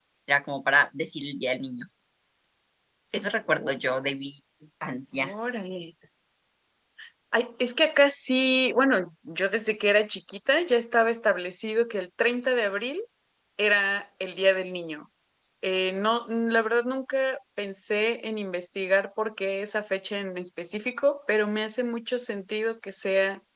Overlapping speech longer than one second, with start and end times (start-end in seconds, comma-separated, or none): none